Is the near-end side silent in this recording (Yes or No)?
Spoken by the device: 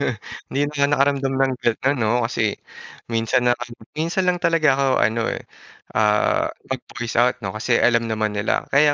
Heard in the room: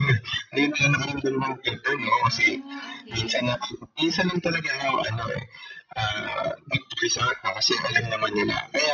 No